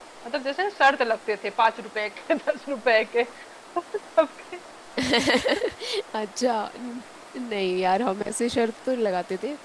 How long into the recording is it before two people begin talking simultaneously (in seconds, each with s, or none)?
none